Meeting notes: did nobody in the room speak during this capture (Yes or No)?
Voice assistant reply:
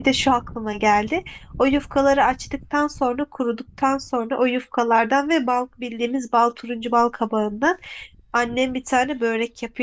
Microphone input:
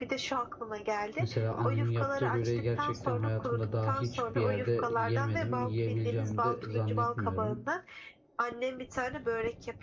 No